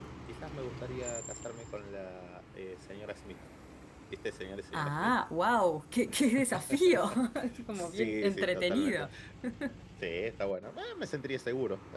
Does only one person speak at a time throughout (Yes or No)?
No